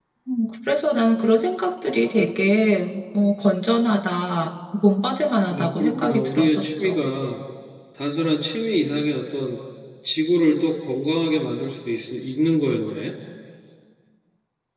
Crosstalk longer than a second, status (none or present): present